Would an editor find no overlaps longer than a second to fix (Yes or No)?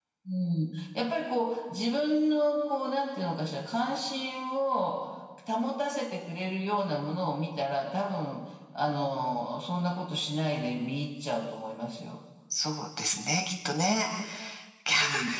Yes